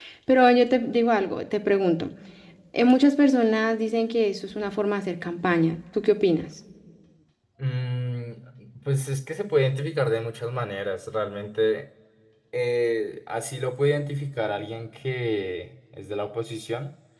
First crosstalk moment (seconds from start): none

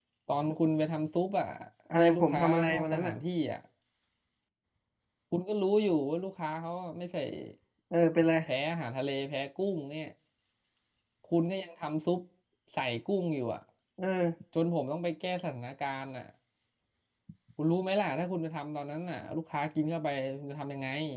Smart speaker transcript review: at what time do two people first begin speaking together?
1.9 s

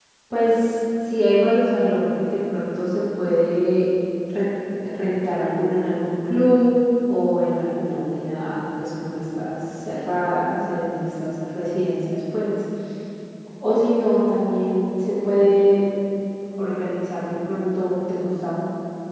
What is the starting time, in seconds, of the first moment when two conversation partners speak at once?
none

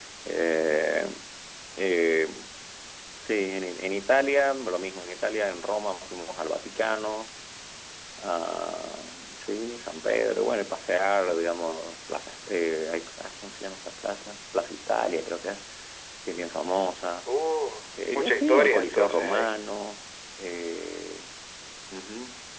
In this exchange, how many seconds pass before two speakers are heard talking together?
18.1 s

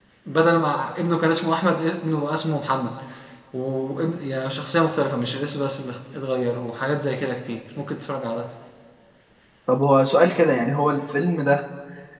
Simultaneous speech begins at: none

